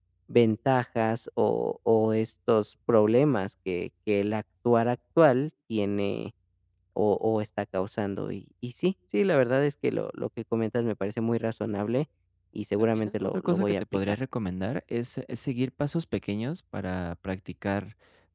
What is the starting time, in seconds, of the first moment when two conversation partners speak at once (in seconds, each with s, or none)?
12.8 s